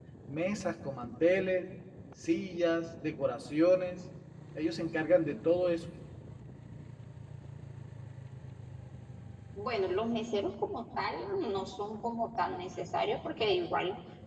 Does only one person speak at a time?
Yes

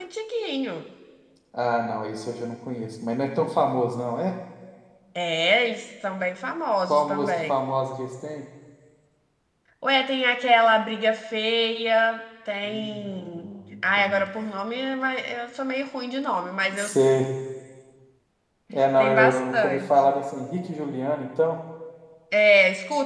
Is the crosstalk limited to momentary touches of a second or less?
No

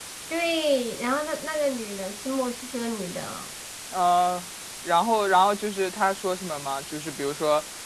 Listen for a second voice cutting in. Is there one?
No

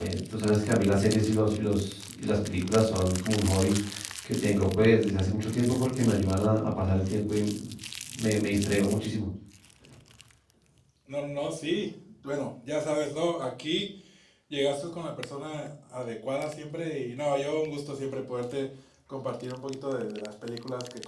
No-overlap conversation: Yes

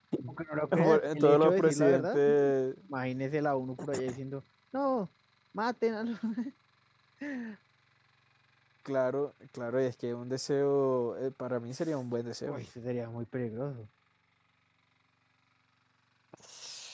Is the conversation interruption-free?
No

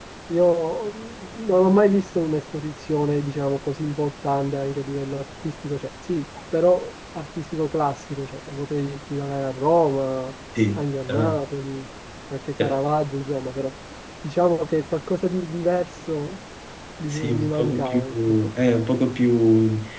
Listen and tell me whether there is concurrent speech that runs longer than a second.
Yes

